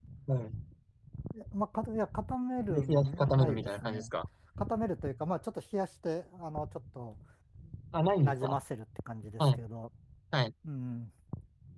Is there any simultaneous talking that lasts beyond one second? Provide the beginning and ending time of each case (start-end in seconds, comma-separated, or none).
2.7-4.1